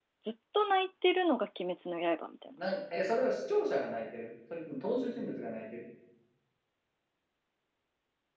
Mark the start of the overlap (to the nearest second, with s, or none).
none